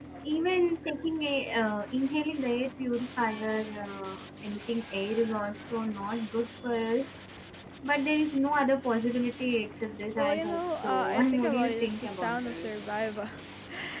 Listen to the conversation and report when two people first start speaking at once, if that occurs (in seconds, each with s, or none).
10.2 s